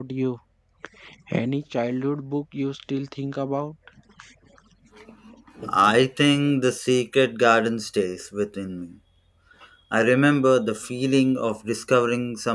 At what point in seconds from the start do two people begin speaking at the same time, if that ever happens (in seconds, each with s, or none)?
none